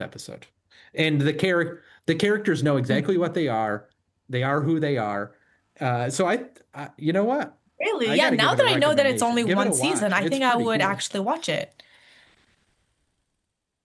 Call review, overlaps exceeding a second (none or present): present